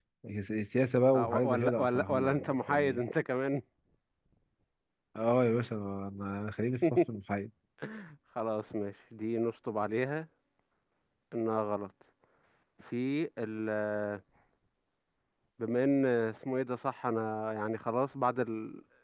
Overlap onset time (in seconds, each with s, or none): 1.1 s